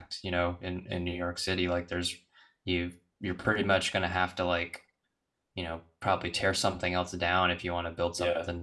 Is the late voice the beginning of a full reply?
Yes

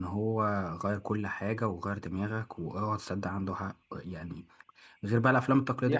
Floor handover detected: No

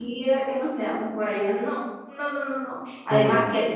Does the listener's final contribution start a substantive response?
No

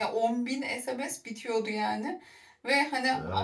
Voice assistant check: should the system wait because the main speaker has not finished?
Yes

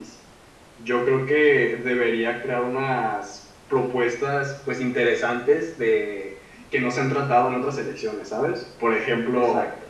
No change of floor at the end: Yes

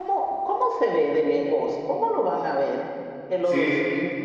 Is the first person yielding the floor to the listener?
No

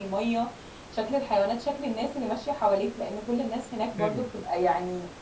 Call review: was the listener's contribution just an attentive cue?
Yes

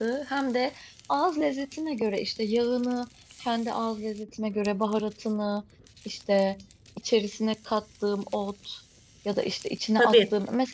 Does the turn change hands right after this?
No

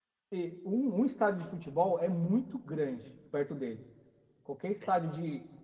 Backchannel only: Yes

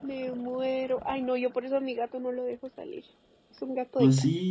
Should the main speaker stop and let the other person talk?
Yes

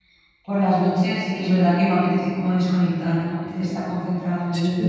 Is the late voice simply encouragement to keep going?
No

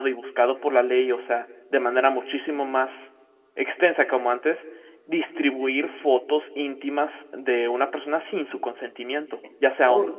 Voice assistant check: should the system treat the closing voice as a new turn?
Yes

